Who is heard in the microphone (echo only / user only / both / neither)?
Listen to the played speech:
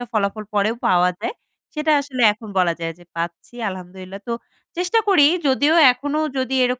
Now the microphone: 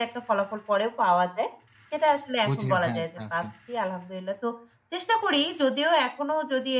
both